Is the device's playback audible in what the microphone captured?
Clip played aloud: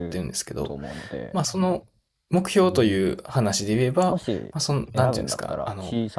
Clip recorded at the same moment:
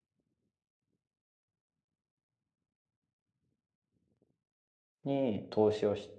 No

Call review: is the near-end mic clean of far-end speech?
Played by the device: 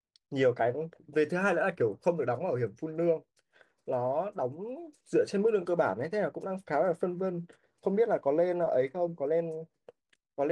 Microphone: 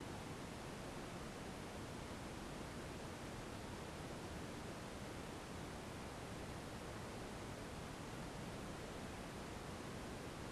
Yes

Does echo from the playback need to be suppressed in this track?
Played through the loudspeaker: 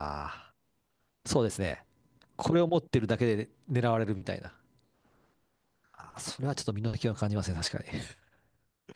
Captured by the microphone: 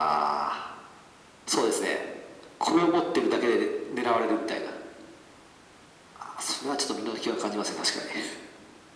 Yes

